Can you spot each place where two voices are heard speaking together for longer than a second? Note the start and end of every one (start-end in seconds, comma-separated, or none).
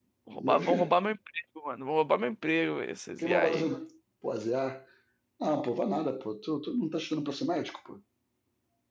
none